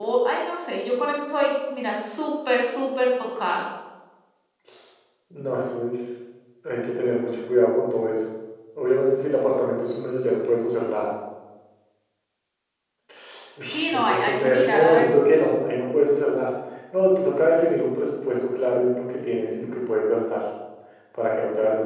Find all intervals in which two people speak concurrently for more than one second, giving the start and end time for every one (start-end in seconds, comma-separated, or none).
13.7-15.1